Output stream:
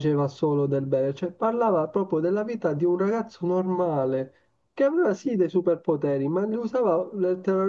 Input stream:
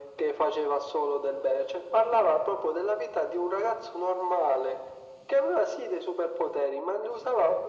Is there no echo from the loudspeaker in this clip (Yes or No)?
No